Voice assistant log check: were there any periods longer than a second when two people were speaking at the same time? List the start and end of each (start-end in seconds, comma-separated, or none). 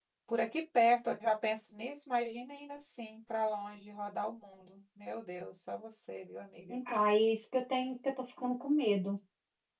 none